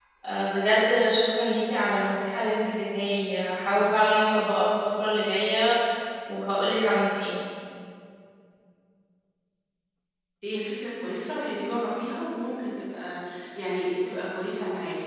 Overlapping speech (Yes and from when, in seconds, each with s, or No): No